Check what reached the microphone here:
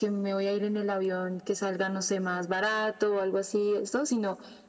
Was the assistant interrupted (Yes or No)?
No